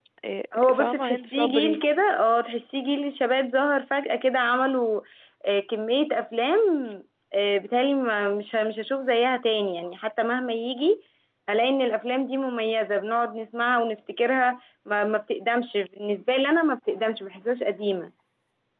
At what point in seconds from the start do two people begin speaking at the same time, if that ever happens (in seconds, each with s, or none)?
0.5 s